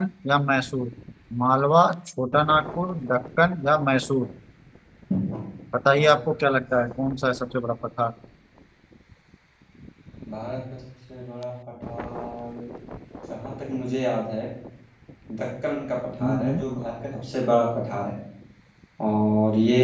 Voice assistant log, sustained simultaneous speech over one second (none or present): none